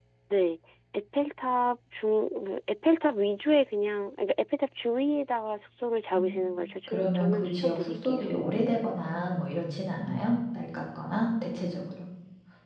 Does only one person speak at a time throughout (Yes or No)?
No